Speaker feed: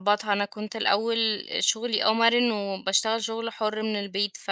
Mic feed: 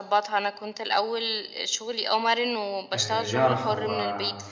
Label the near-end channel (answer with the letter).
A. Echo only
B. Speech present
B